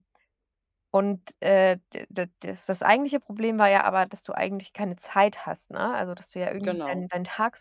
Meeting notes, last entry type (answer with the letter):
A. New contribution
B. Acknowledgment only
B